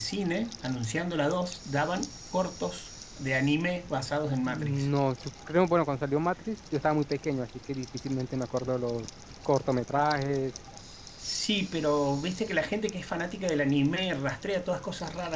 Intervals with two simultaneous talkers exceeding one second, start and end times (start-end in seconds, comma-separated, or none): none